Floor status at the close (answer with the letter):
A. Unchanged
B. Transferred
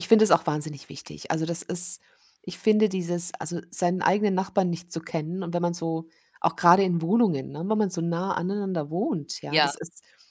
A